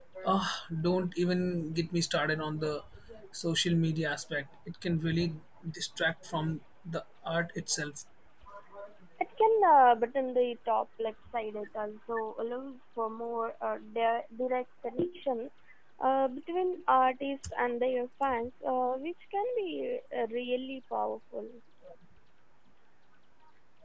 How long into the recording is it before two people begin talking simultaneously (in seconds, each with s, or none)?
none